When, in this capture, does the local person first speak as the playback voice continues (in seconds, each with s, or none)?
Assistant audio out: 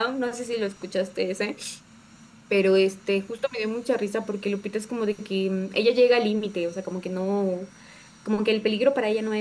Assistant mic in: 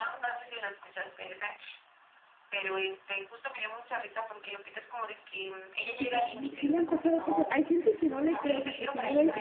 6.0 s